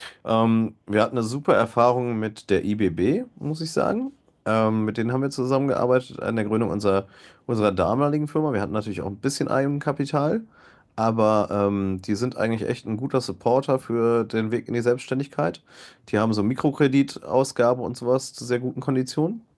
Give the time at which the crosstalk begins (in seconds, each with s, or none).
none